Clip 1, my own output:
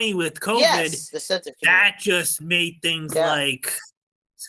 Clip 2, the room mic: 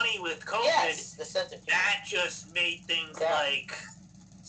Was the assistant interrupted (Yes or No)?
No